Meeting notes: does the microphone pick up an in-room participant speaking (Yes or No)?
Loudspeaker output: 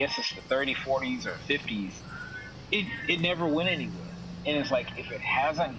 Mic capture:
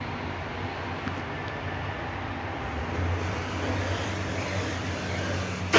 No